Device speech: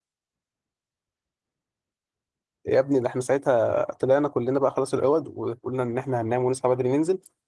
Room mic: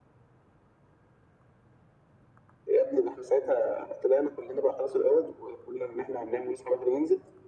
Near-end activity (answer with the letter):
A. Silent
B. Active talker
A